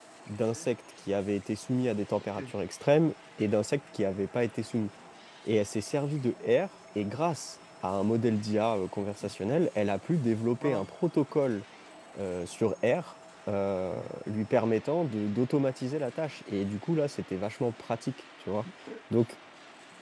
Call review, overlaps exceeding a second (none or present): none